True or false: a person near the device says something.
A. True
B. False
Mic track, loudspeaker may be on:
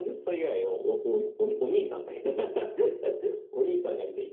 B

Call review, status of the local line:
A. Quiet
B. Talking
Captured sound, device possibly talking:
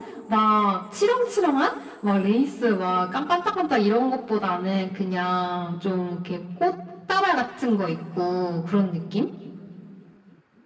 A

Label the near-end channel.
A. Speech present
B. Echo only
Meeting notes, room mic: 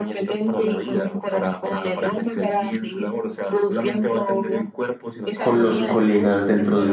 A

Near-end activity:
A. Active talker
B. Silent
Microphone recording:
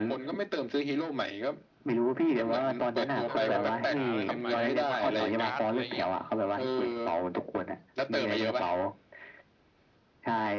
A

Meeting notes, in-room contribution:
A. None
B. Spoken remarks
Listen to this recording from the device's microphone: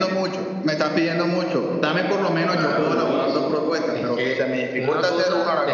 A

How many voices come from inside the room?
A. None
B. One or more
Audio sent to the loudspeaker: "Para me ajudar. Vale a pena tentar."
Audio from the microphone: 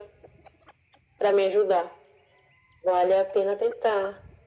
A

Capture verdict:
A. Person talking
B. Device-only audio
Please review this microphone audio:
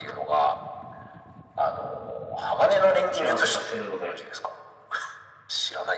A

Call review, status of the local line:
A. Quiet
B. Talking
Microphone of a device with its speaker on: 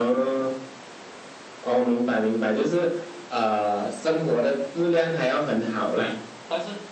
B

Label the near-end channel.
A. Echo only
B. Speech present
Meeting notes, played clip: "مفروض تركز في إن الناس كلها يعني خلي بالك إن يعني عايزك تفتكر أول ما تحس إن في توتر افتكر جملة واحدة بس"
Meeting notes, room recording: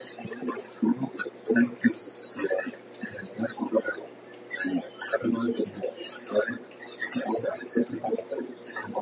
A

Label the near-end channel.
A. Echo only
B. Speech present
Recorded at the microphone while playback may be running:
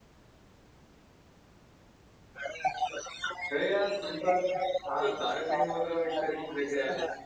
B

